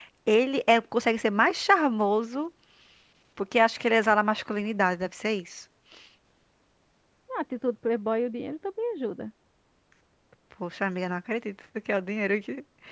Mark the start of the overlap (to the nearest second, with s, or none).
none